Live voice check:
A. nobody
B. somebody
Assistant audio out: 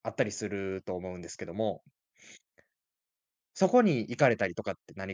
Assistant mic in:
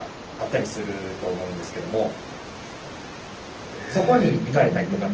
B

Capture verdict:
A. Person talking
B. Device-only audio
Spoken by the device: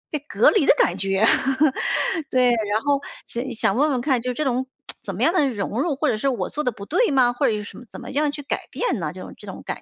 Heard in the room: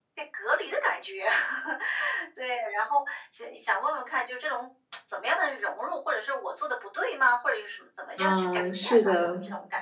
A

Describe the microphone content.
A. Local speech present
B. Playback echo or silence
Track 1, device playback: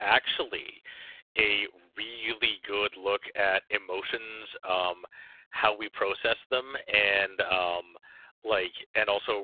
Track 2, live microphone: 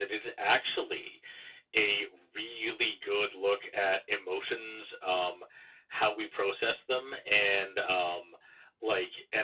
B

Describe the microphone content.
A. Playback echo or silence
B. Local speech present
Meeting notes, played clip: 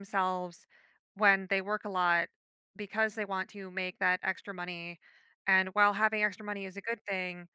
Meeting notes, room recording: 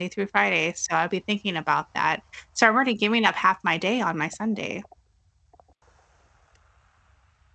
B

